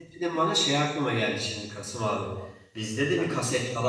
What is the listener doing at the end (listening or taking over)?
listening